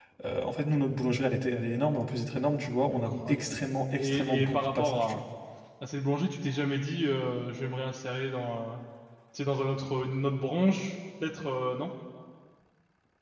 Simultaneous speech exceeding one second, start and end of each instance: 3.0-5.2

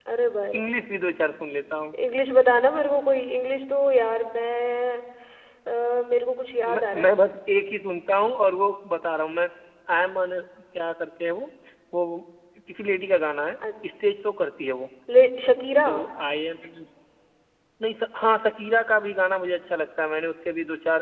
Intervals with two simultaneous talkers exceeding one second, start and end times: none

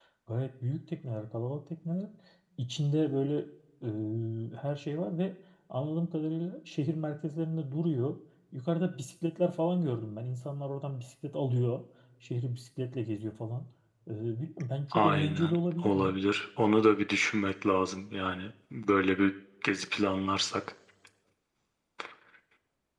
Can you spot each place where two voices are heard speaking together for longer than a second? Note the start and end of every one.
14.9-16.2

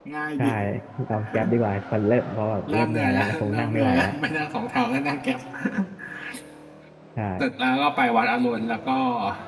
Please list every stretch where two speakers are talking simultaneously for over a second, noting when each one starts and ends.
2.7-4.1

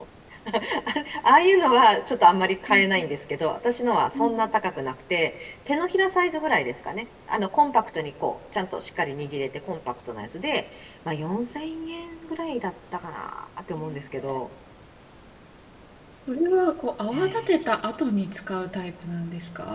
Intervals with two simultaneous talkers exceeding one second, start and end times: none

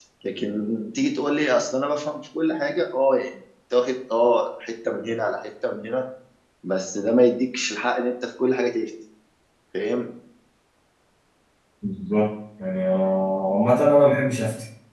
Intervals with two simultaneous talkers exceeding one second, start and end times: none

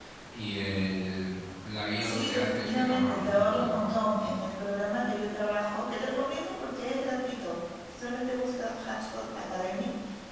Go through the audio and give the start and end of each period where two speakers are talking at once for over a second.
2.0-4.3

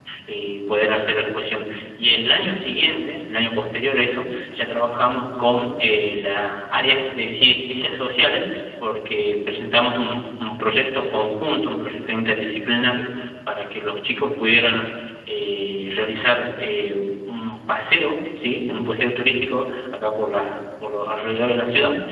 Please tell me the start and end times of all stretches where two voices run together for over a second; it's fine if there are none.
none

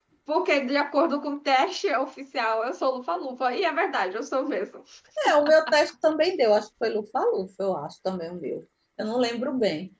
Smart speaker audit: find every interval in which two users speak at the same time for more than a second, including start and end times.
none

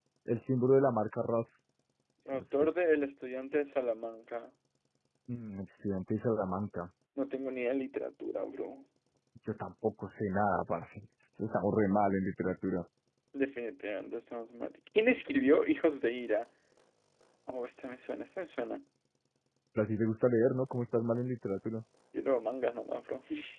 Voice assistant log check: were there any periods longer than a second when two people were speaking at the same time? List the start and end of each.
none

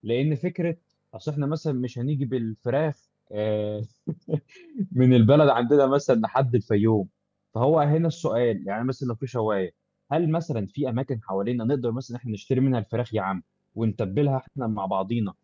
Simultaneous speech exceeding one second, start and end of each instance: none

